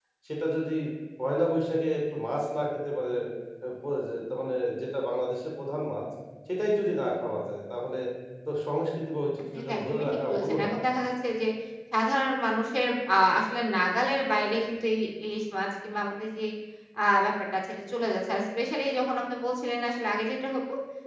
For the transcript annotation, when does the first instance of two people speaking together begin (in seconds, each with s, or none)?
9.5 s